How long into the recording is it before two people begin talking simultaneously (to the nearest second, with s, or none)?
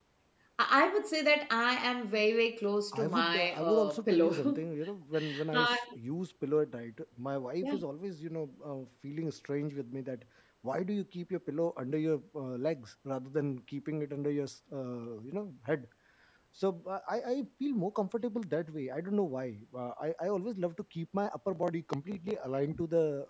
3 s